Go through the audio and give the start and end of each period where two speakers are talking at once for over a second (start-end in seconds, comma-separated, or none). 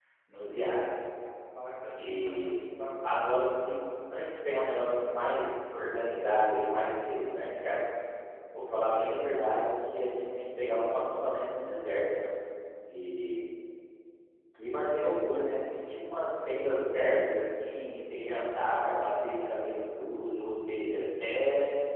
1.9-3.7